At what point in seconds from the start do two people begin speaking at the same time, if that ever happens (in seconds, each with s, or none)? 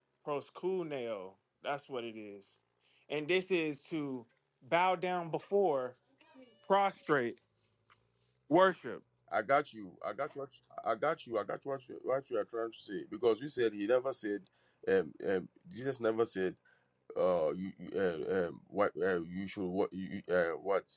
none